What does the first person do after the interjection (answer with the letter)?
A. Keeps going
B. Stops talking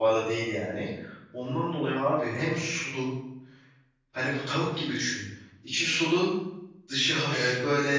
A